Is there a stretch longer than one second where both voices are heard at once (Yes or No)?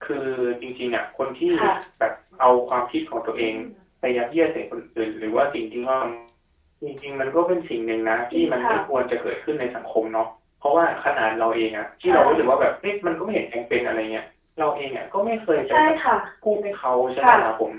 No